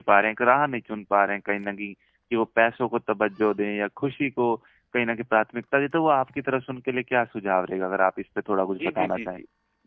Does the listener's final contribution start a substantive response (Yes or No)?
Yes